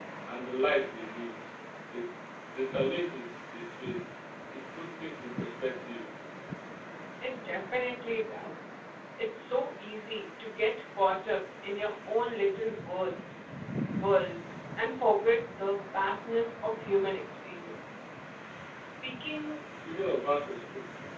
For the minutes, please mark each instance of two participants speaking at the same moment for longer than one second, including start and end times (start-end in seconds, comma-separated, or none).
none